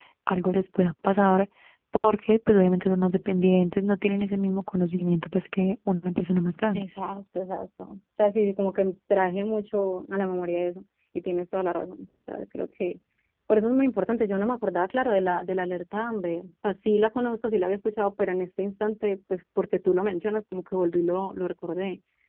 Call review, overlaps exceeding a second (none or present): none